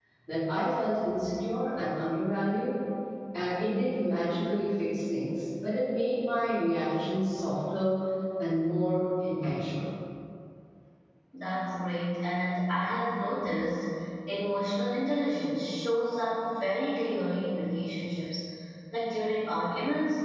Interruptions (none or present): none